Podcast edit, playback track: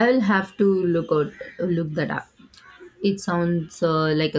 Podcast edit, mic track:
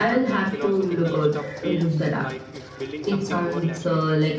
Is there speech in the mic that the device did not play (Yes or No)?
Yes